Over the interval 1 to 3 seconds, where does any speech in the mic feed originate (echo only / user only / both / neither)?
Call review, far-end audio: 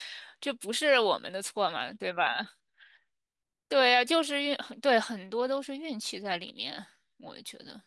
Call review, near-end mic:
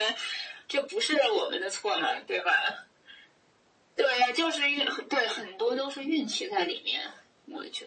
echo only